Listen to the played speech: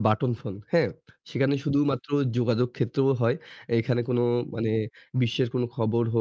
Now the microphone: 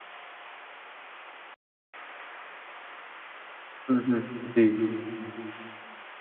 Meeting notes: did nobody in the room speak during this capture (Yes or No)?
No